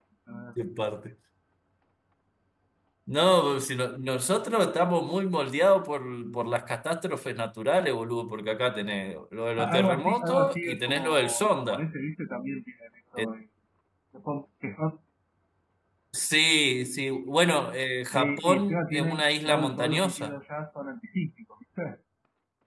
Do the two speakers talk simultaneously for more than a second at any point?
Yes, from 9.6 s

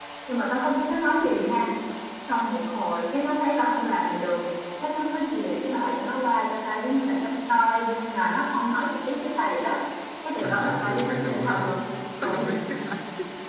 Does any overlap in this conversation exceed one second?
Yes, from 10.4 s

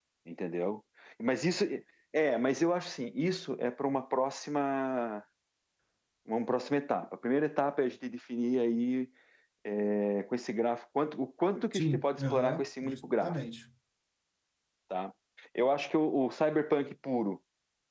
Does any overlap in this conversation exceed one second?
Yes, from 11.7 s

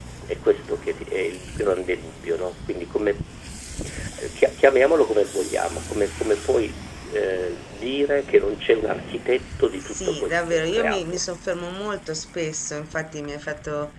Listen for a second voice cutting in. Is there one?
Yes, from 9.8 s

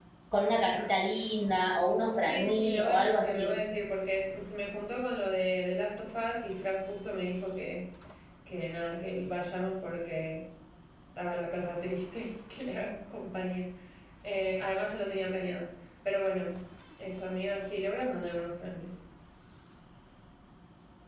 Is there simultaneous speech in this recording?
Yes, from 2.2 s

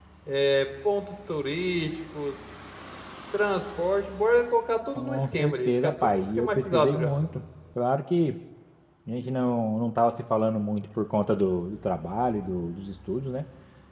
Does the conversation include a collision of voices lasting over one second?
Yes, from 5.0 s

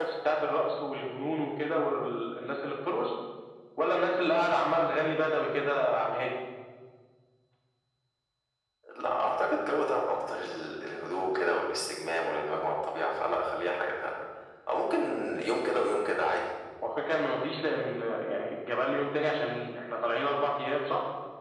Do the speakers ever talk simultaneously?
No

